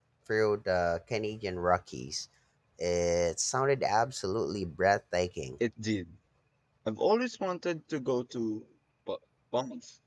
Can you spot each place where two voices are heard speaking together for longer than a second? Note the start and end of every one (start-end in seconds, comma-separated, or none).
none